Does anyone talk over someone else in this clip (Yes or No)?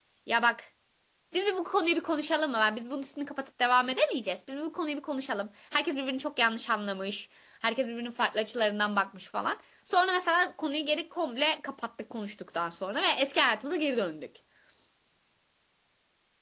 No